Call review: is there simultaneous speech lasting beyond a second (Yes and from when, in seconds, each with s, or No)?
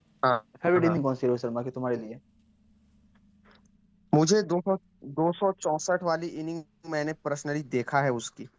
No